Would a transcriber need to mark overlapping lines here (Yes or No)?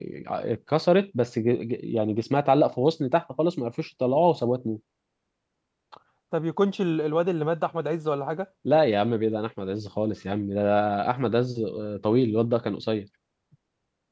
No